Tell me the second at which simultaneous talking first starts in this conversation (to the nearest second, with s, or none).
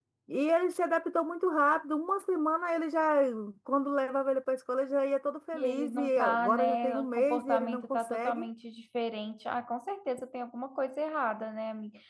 6 s